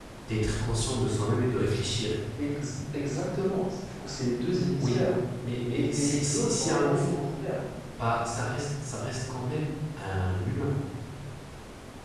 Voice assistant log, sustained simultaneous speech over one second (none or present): present